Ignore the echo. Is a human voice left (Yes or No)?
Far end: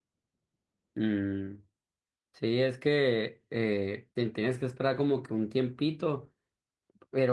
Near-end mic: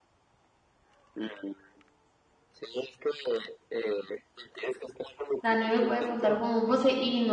Yes